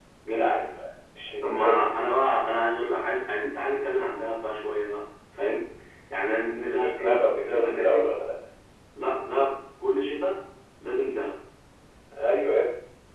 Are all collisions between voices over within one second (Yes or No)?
No